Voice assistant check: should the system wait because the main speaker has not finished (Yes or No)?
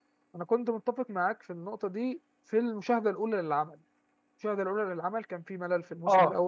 Yes